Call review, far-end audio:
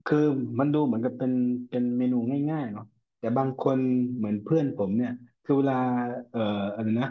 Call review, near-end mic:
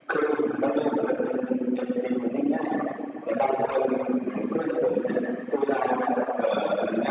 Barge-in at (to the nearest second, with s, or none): none